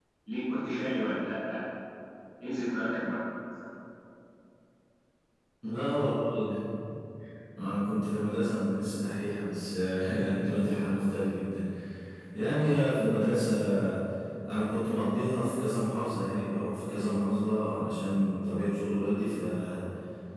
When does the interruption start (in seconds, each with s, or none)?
none